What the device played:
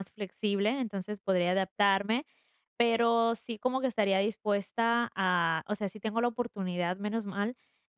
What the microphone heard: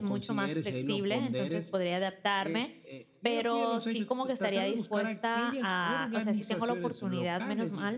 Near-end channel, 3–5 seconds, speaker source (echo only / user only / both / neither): both